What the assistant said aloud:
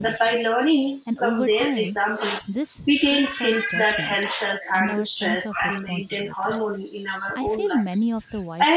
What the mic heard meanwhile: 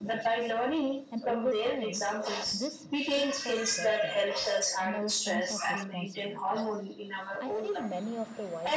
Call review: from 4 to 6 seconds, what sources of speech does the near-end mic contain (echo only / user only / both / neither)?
echo only